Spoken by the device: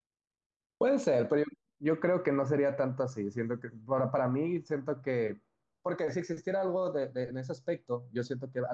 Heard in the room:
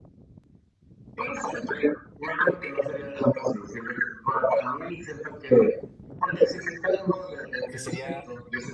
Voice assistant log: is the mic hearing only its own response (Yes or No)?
No